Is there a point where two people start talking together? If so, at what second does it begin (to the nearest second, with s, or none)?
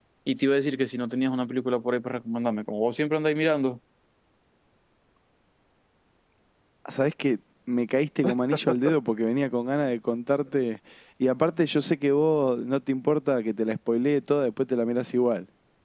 none